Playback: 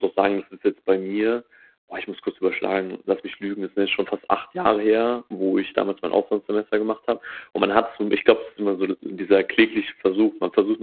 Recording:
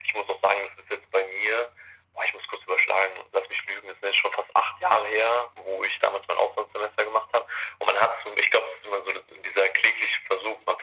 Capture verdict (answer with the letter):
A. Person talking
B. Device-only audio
B